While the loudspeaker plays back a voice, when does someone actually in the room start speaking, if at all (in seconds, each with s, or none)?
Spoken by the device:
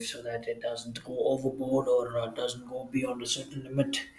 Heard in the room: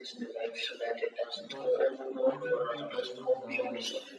1.4 s